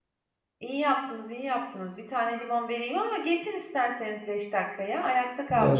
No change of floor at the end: No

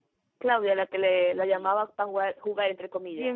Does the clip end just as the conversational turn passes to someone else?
Yes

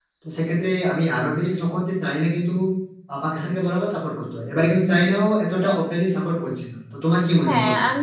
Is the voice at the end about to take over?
Yes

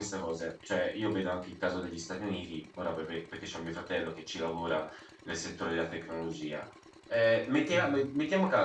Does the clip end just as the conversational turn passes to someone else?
No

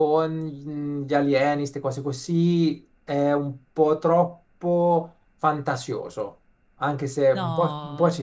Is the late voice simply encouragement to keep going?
Yes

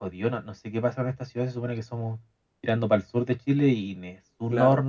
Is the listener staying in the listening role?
Yes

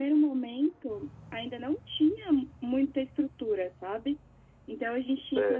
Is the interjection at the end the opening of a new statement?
No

